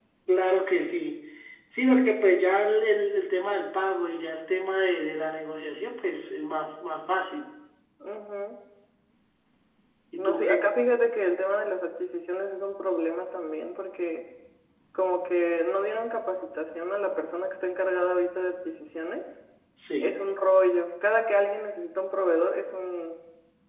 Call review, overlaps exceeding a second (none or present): none